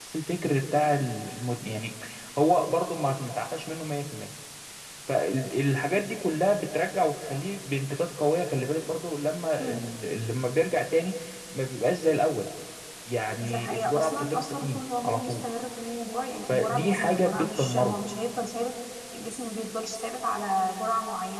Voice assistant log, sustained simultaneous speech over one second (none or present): present